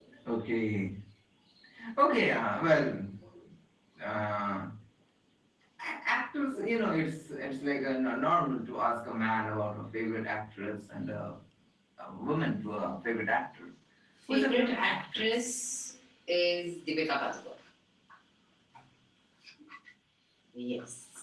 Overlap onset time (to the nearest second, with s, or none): 14 s